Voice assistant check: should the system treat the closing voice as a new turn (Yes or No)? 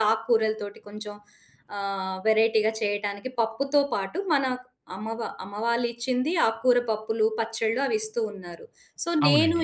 No